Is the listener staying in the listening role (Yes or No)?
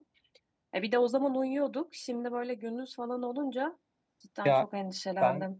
No